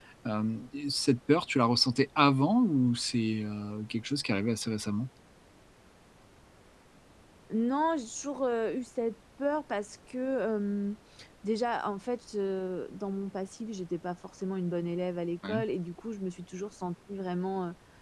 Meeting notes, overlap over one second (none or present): none